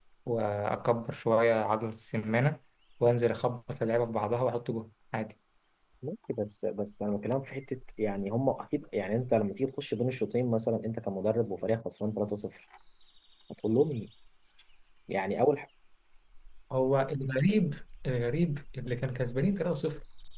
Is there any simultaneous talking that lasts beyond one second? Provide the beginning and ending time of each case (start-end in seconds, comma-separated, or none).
none